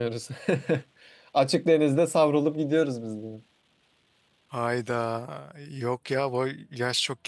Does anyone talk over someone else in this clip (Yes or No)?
No